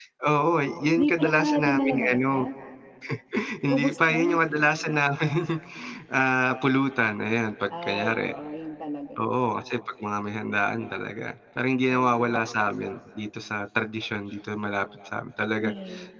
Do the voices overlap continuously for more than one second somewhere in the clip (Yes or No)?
Yes